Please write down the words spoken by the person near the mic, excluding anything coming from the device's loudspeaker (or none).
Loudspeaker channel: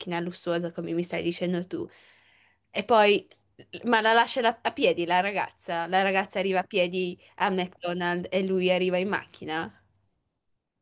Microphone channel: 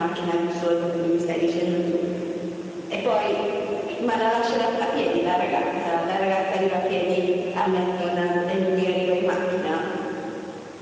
none